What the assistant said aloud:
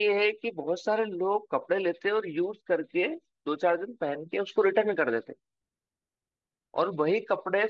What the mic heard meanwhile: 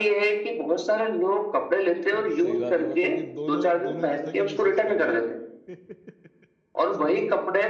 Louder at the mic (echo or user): echo